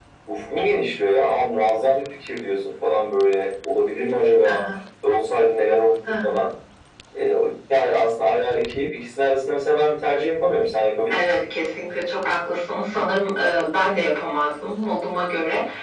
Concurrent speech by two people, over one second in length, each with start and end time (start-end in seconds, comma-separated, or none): none